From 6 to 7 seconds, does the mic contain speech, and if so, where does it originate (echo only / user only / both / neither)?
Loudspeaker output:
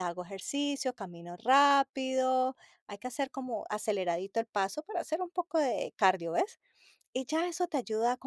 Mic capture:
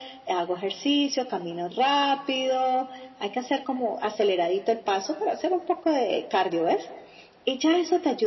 echo only